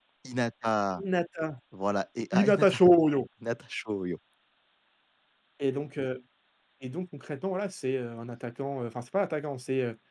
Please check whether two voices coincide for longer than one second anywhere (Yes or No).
No